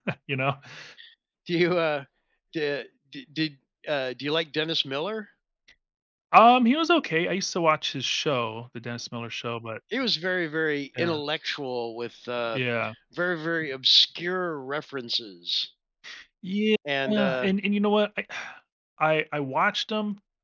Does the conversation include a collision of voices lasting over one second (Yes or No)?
No